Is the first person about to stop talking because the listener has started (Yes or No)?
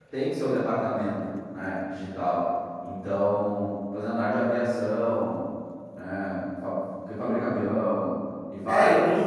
Yes